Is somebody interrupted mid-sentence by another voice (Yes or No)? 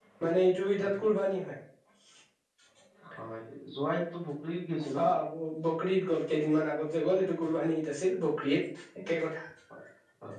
No